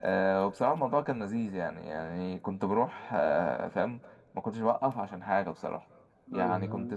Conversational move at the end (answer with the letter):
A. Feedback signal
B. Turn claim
A